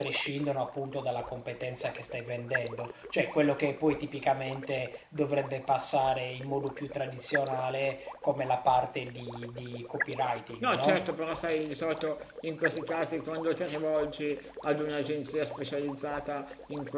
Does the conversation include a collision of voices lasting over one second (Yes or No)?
No